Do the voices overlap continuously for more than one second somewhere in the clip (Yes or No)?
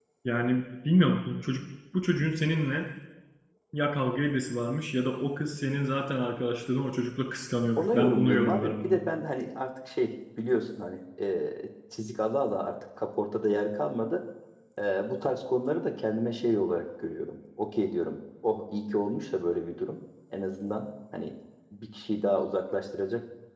Yes